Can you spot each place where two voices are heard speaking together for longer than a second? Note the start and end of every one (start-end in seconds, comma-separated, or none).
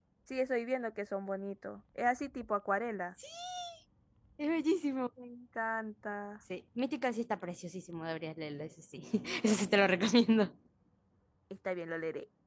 none